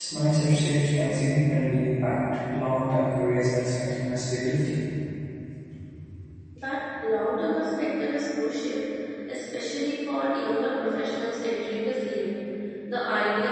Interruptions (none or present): none